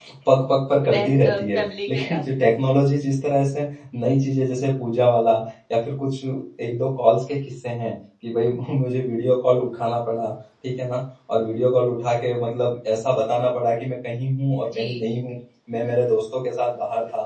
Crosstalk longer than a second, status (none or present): present